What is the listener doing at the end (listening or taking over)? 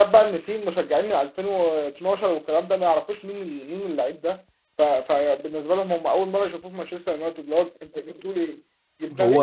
listening